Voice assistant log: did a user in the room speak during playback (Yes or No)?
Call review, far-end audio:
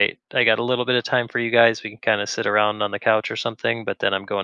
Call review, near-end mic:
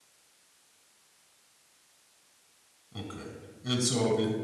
Yes